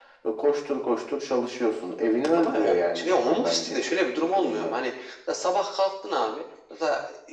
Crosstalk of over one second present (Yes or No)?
Yes